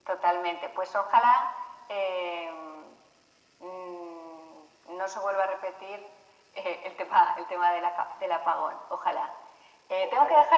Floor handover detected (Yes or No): No